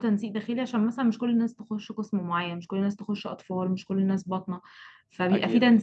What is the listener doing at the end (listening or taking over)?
listening